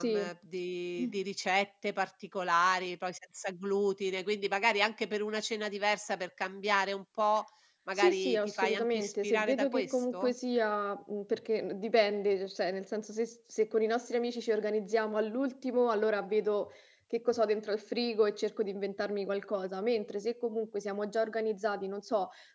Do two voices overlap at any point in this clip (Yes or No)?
Yes